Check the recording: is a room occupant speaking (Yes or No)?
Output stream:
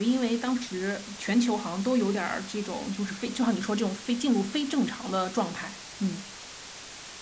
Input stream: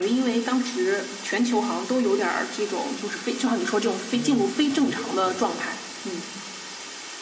Yes